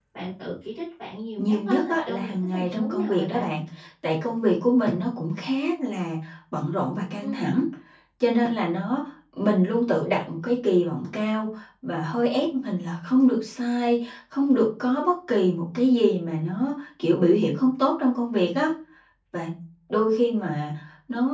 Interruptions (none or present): present